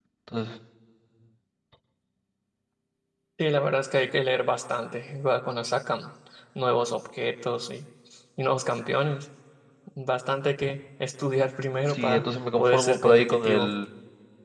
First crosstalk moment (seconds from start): 11.9 s

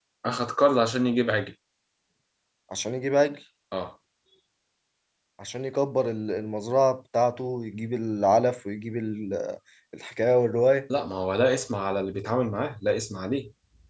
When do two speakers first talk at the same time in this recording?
none

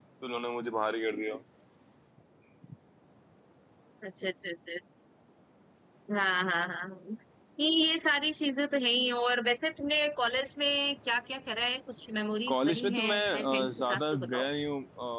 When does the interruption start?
12.5 s

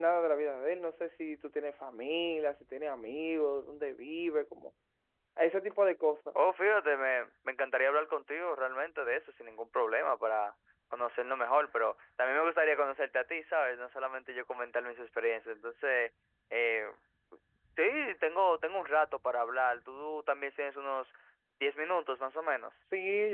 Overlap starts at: none

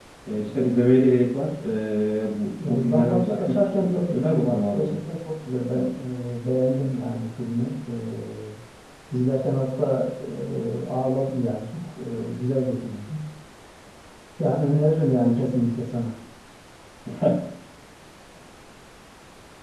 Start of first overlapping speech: 2.6 s

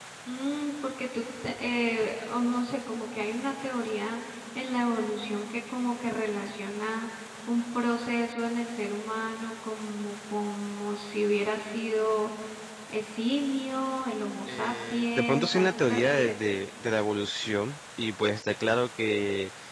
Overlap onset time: 14.5 s

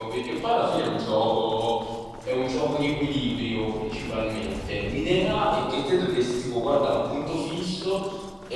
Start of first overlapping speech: none

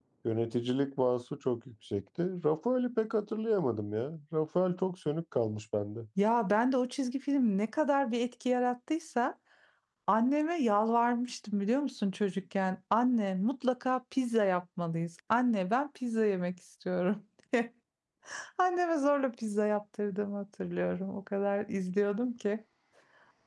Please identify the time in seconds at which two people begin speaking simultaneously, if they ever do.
none

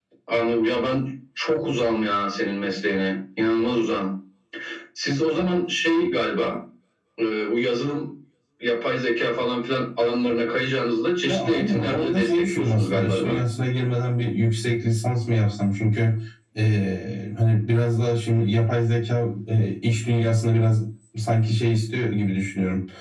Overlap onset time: 11.2 s

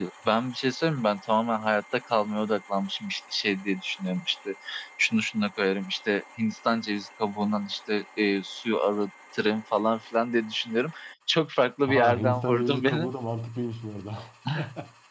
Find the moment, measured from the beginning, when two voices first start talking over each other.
11.9 s

